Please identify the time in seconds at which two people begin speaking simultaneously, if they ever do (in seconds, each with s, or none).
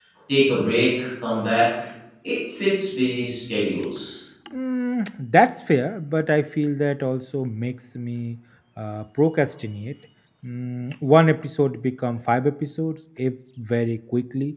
none